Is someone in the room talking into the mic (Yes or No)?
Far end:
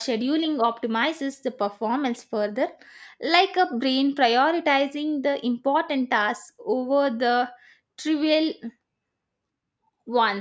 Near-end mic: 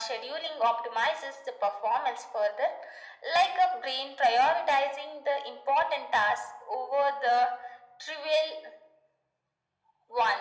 No